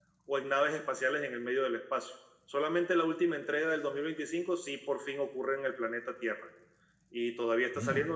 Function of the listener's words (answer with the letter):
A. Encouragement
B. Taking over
A